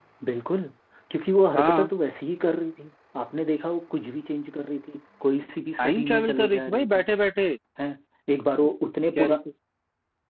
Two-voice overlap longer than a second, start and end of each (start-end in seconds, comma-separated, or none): 5.8-7.0